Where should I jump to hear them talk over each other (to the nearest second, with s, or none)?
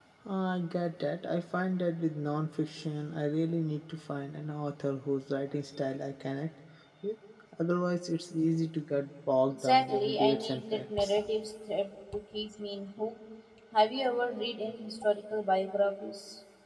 9 s